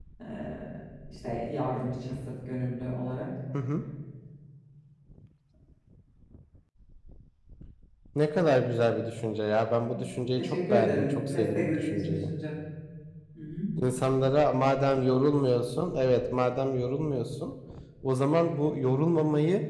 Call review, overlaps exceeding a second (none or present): present